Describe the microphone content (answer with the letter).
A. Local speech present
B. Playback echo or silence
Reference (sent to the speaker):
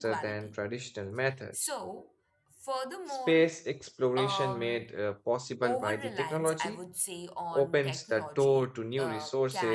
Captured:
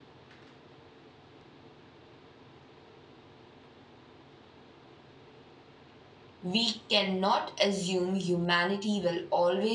A